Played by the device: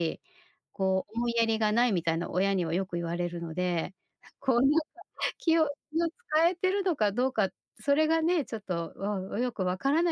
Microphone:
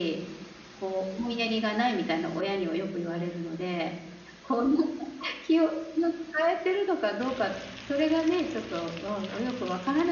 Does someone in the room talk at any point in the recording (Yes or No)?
No